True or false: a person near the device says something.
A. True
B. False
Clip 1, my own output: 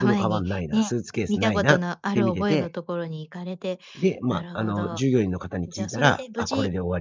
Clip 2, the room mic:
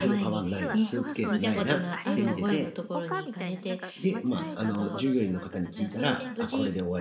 A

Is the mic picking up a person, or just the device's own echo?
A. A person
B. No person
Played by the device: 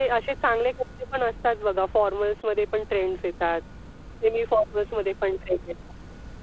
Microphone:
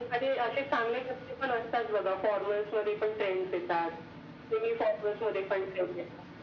B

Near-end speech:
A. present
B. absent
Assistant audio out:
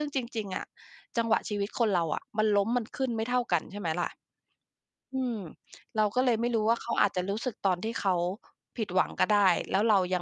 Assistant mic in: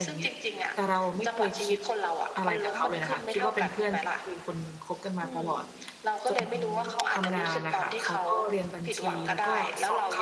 A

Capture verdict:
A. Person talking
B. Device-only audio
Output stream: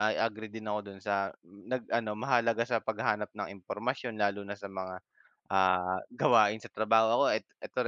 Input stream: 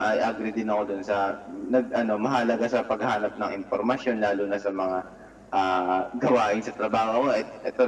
B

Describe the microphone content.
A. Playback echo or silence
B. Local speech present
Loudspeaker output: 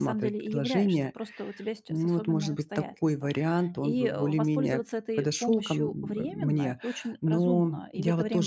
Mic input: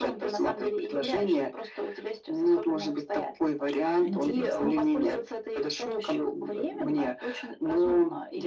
B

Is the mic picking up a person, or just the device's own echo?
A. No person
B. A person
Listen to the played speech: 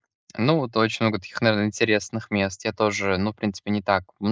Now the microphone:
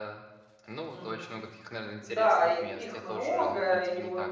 B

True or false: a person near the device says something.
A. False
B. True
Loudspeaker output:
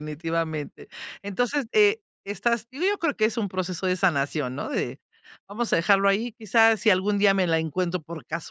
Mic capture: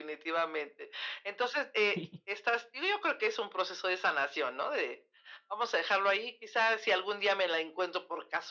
B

